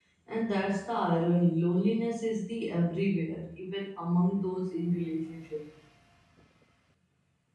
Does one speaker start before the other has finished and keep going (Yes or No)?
No